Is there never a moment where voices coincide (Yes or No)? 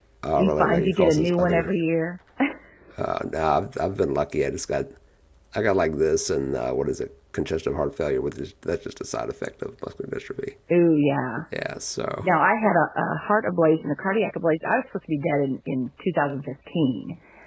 No